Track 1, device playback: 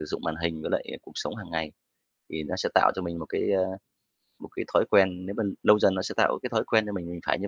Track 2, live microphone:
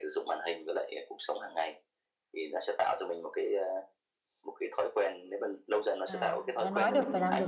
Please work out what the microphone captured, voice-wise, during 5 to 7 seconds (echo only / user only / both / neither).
both